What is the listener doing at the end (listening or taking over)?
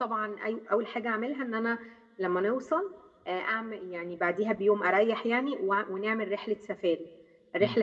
listening